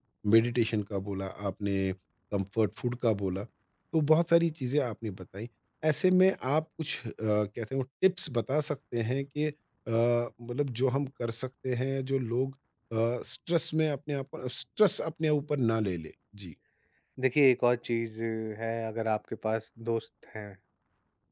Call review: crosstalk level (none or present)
none